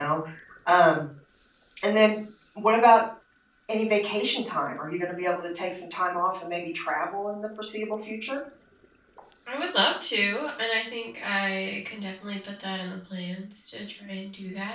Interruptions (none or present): none